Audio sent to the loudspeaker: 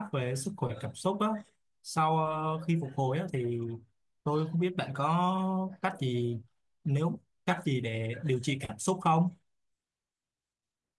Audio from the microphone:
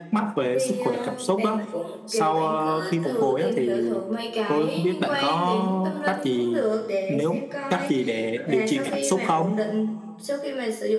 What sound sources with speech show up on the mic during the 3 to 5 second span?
both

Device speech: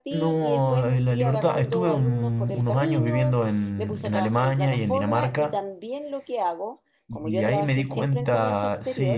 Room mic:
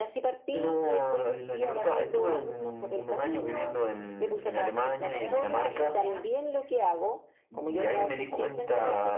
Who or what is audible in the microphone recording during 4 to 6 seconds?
both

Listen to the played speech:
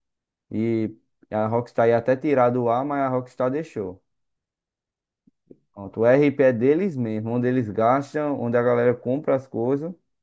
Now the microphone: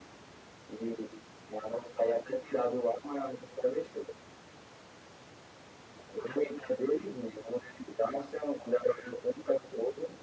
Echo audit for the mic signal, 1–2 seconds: echo only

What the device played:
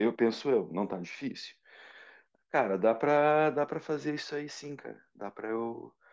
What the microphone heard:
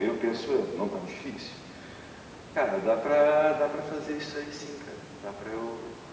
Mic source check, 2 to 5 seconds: echo only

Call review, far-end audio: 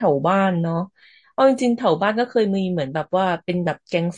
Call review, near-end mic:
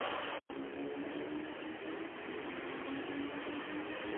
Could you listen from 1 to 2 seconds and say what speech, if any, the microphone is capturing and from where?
neither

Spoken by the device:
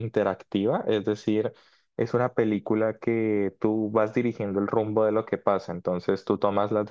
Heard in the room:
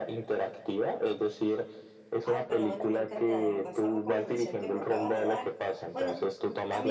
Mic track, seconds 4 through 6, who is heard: both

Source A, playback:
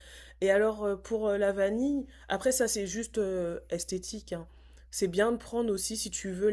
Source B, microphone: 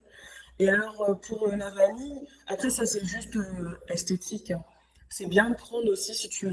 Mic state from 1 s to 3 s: echo only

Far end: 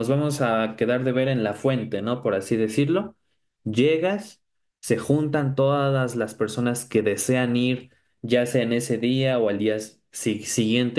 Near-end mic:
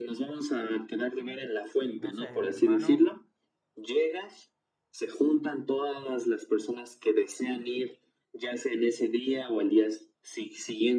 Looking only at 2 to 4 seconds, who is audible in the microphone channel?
both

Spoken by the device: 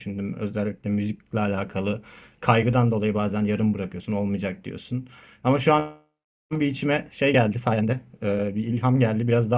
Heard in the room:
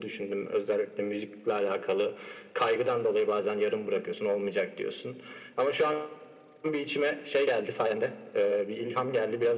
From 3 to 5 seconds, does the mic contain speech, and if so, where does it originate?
echo only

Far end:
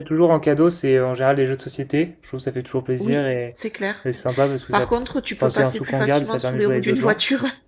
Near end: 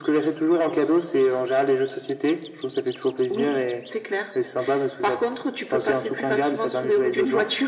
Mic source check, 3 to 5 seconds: echo only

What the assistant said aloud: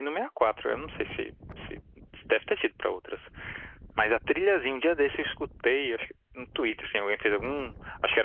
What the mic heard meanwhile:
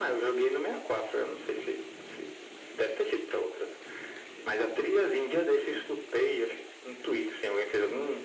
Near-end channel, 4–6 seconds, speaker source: echo only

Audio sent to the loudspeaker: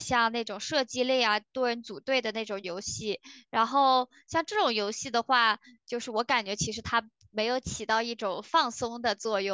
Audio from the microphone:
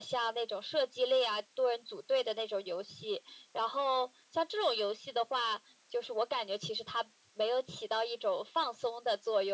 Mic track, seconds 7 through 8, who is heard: echo only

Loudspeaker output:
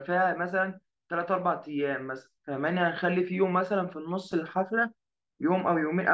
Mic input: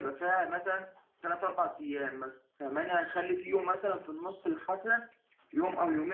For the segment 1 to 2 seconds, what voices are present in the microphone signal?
echo only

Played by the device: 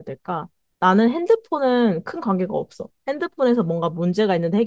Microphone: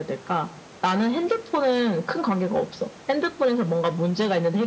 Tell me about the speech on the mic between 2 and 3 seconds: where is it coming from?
echo only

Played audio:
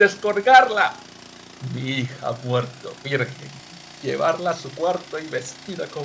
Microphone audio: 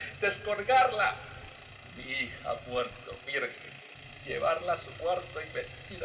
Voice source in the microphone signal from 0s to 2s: echo only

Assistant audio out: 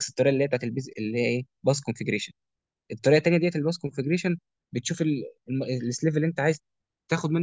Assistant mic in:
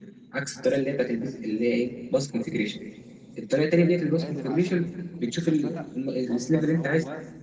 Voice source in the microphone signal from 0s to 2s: echo only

